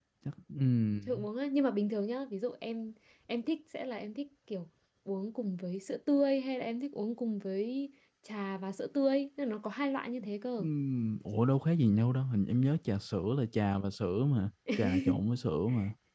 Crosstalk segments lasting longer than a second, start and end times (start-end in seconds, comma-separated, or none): none